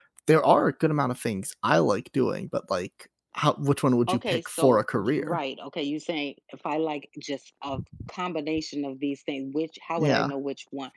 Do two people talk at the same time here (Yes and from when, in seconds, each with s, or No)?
Yes, from 4.1 s